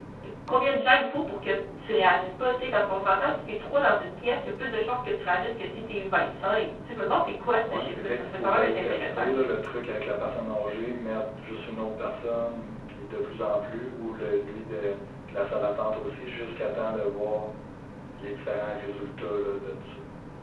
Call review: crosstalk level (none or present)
present